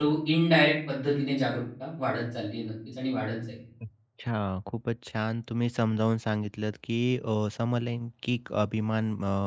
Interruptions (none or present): none